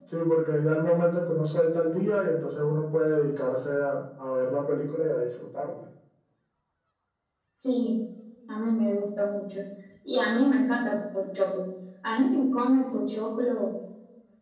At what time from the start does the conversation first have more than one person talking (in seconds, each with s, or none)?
none